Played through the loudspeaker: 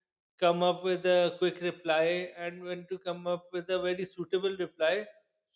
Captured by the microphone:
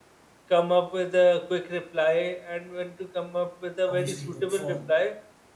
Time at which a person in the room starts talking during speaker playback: 3.9 s

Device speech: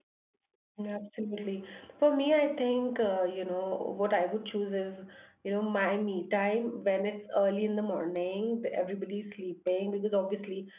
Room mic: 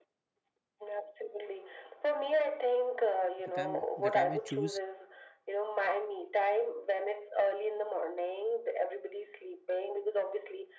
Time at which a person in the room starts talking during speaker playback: 3.4 s

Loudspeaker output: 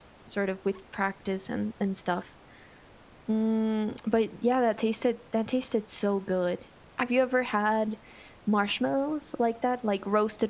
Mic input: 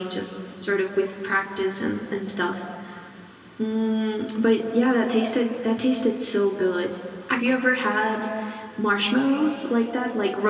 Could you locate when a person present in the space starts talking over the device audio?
none

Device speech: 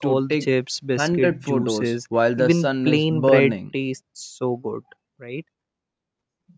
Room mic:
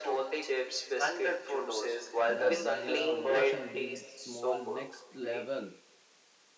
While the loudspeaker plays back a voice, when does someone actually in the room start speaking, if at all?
2.3 s

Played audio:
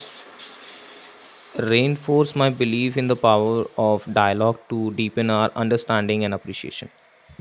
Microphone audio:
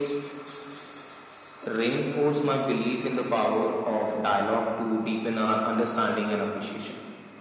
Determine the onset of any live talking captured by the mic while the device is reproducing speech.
none

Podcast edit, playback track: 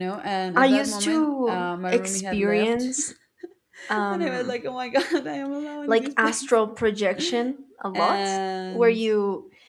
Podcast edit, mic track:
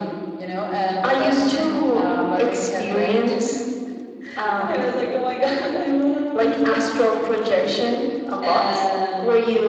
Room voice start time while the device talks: none

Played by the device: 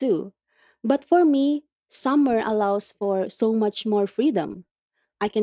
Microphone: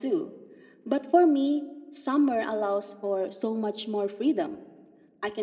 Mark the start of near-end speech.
none

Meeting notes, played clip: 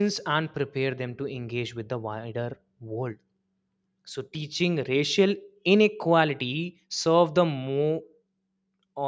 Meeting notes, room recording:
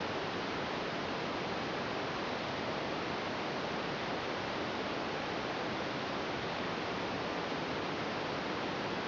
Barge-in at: none

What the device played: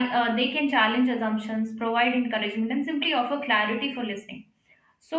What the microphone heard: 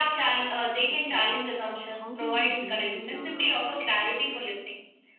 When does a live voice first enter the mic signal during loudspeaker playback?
0.9 s

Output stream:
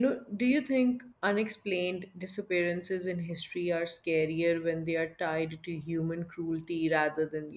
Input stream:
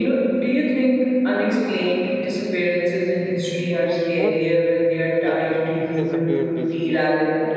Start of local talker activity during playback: 3.7 s

